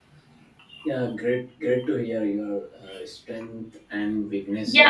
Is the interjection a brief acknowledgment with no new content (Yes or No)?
No